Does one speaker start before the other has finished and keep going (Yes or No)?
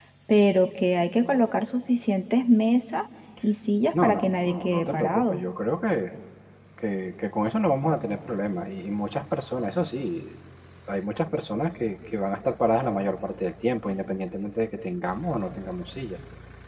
Yes